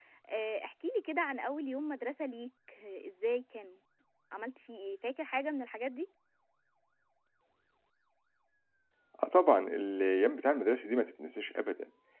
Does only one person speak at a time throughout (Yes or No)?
Yes